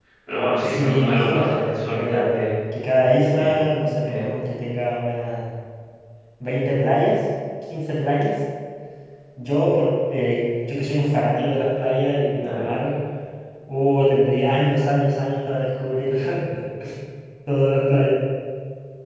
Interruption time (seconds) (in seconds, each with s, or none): 0.6 s